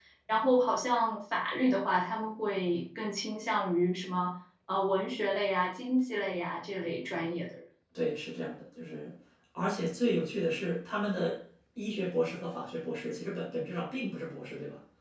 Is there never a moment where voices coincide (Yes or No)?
Yes